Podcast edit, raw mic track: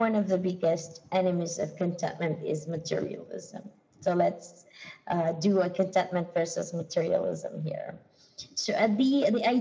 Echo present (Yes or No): Yes